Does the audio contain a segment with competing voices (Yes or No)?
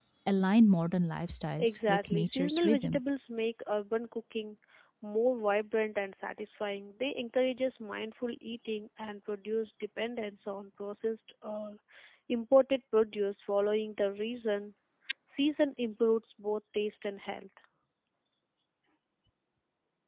Yes